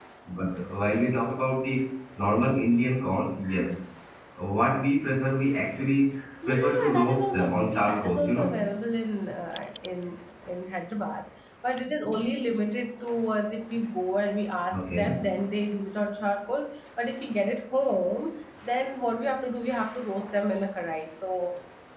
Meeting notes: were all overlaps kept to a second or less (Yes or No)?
No